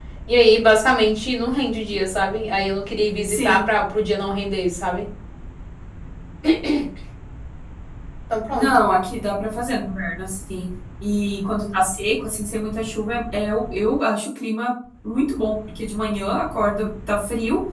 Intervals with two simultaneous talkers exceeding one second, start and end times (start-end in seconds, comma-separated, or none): none